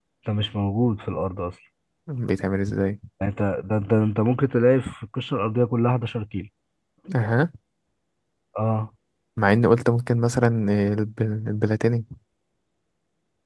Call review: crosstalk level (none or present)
none